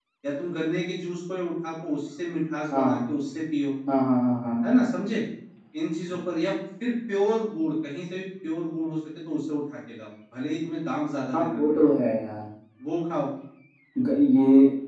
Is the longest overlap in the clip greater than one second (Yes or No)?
No